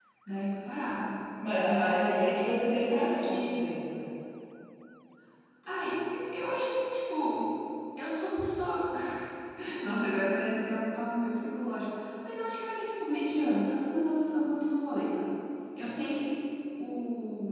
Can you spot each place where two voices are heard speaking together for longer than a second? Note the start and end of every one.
1.6-3.6

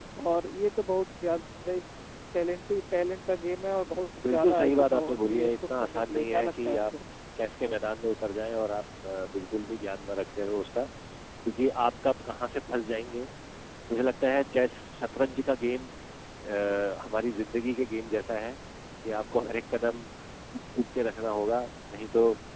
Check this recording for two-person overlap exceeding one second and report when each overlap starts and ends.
4.2-6.8

